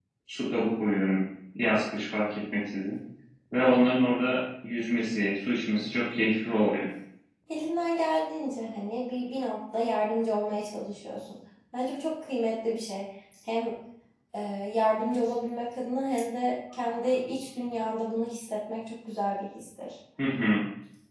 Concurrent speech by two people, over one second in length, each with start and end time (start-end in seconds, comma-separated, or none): none